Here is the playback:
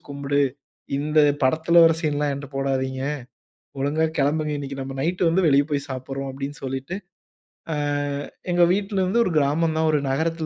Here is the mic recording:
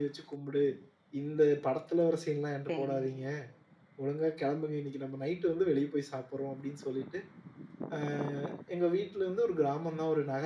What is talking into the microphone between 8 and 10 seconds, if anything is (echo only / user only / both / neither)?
echo only